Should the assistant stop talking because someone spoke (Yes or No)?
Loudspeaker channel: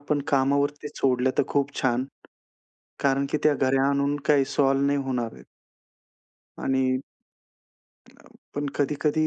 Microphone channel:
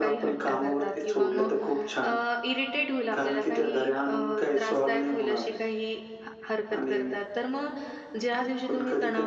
Yes